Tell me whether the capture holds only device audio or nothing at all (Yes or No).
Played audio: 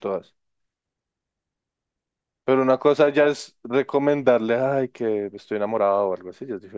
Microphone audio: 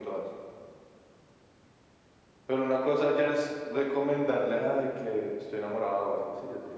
Yes